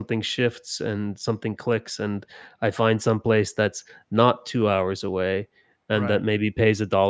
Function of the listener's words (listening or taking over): listening